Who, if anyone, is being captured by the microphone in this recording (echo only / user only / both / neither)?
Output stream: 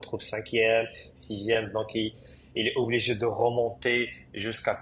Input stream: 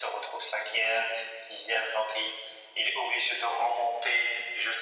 echo only